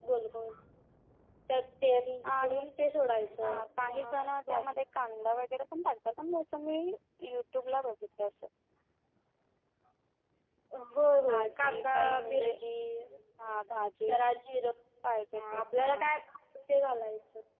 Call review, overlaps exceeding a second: present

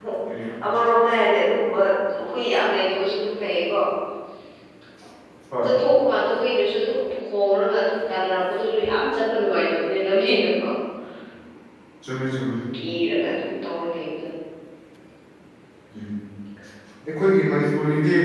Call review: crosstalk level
none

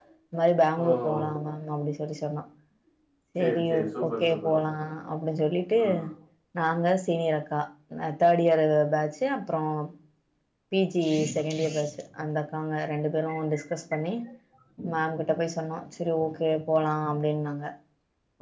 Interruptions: present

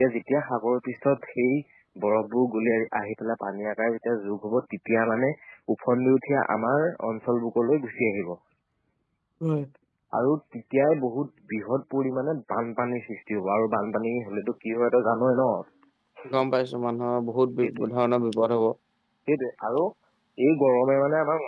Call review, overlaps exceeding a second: none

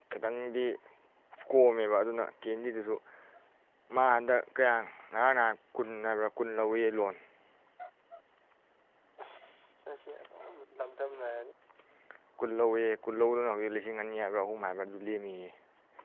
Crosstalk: none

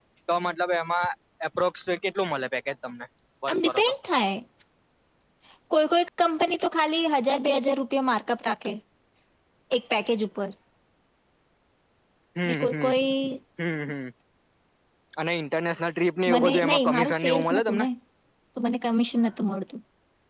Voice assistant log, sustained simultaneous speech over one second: present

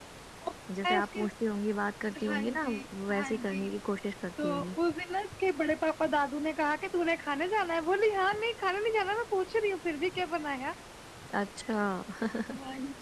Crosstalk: present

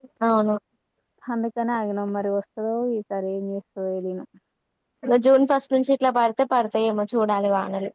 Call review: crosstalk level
none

